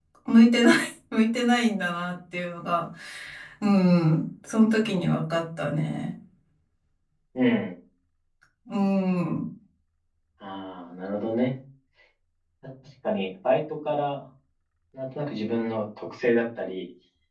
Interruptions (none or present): none